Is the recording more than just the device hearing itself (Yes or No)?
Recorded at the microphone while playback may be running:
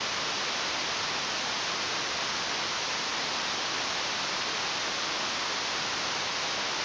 No